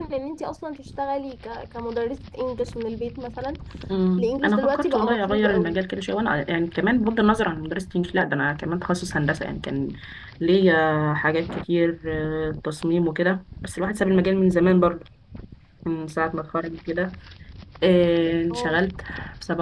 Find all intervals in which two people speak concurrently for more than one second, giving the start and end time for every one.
4.2-5.8

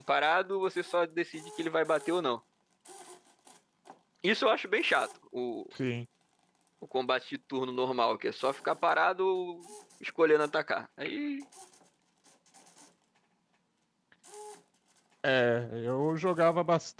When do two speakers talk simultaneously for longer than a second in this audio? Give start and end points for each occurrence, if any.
none

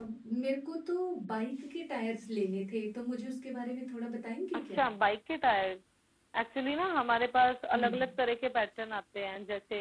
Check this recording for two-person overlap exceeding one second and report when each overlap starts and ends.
none

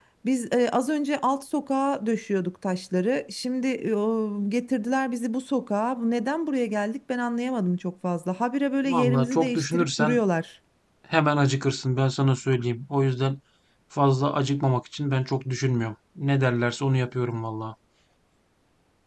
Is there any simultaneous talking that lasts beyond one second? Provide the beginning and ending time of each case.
8.8-10.2

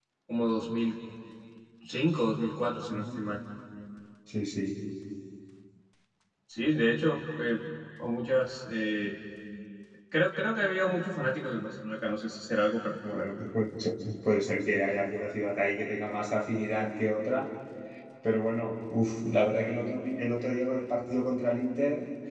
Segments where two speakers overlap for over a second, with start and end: none

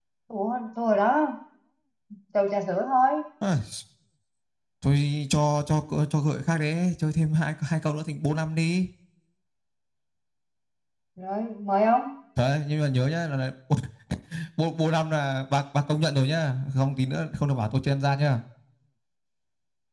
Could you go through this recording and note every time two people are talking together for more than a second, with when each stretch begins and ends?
none

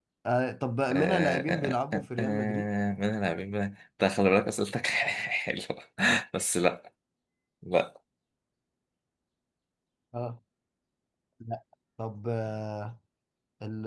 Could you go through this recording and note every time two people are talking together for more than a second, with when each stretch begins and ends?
0.9-2.7

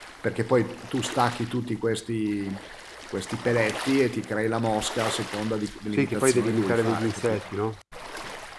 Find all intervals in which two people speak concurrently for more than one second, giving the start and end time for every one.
5.9-7.4

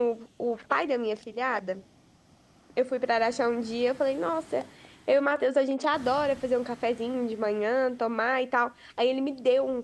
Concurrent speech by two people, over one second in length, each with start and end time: none

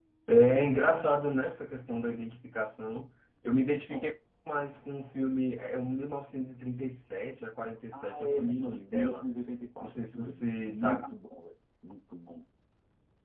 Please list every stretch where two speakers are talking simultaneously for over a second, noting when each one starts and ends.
7.9-9.2, 9.8-11.0

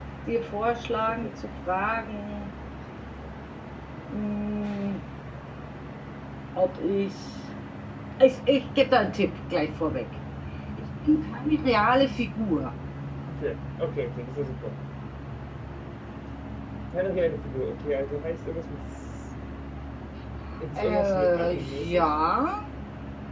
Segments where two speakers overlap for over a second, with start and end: 20.8-22.0

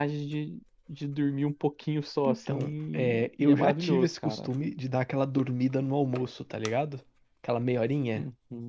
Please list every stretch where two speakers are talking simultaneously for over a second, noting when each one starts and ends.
2.3-4.5

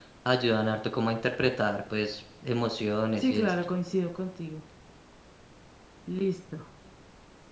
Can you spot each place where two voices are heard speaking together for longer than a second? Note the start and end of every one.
none

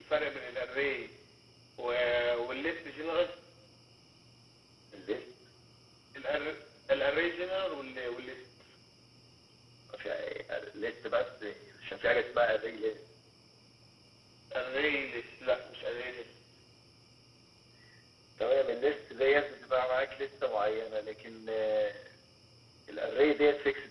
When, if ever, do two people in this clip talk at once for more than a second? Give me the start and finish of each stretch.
none

